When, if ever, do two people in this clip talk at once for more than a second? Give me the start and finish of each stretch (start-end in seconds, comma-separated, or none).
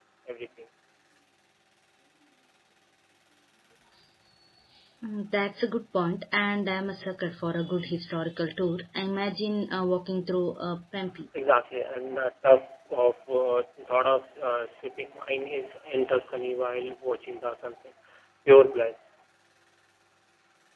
none